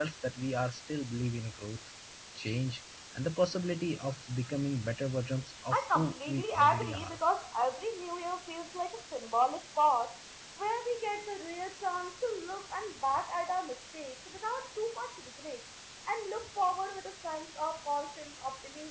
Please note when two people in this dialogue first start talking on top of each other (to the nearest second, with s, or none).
6 s